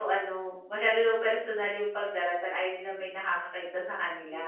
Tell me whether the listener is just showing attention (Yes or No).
No